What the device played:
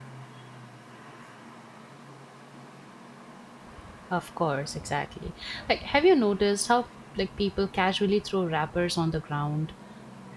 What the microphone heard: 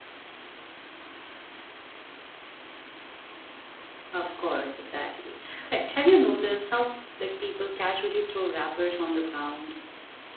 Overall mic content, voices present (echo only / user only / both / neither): echo only